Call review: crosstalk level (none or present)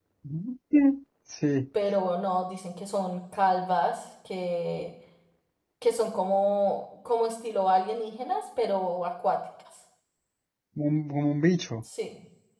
none